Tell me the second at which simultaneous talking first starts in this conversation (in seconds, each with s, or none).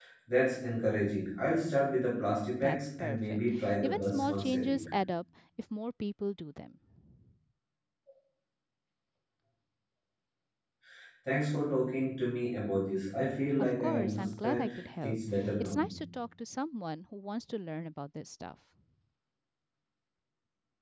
2.6 s